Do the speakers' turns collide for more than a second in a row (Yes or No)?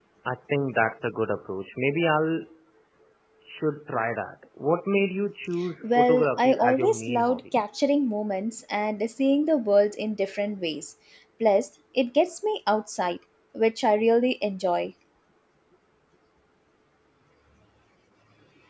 Yes